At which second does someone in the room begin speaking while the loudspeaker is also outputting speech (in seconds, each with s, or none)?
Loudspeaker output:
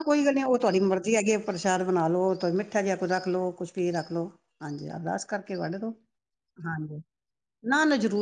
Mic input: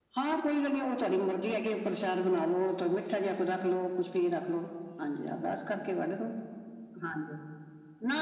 none